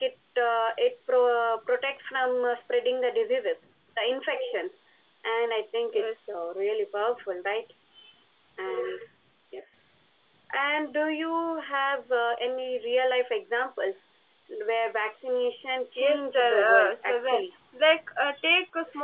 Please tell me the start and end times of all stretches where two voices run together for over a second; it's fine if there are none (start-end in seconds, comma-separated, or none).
16.0-17.4